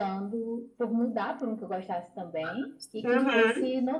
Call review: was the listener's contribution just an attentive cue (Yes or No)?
Yes